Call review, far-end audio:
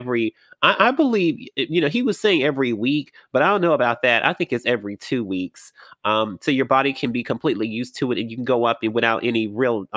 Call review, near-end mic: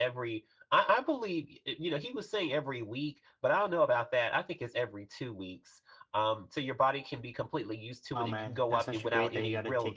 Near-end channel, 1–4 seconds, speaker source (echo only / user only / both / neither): echo only